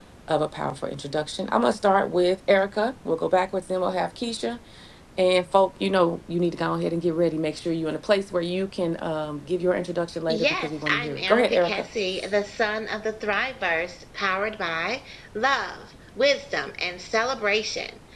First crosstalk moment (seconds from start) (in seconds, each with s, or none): 10.3 s